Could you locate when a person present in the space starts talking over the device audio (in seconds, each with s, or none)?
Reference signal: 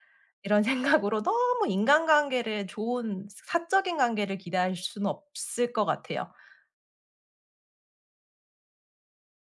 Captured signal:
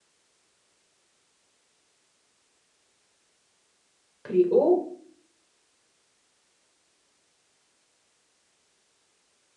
4.2 s